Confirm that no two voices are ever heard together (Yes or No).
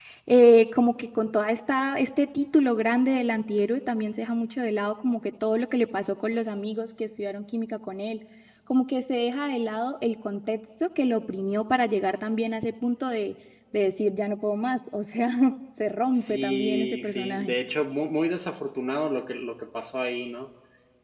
No